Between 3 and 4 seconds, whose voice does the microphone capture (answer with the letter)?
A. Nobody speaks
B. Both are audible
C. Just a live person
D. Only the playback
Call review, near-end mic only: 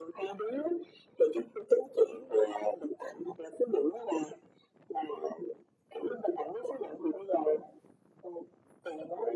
D